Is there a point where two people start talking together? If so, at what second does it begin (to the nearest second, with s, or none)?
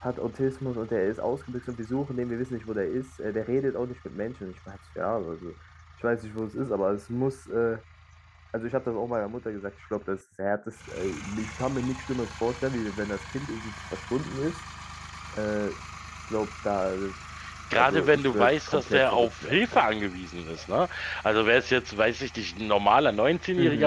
18 s